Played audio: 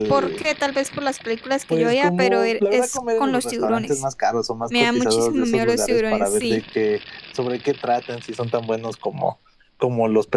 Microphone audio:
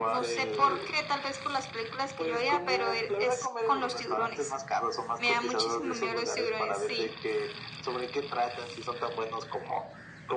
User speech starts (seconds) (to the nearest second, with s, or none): none